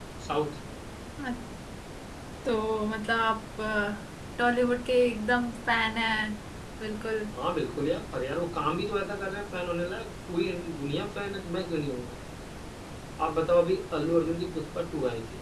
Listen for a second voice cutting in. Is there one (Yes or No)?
No